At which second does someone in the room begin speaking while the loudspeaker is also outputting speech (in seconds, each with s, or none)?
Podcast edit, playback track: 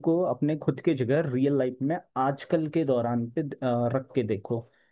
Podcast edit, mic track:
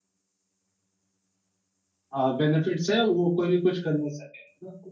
2.1 s